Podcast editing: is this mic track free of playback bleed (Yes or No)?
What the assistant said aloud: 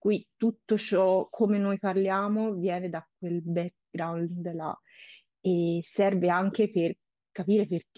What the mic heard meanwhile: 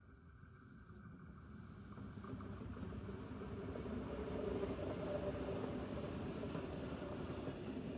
Yes